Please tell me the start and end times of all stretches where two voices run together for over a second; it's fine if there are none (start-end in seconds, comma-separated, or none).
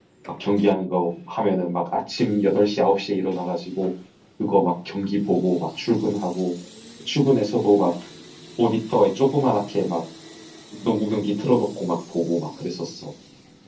none